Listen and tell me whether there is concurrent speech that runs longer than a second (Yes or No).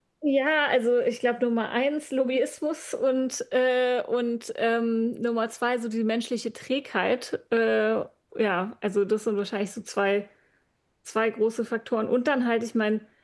No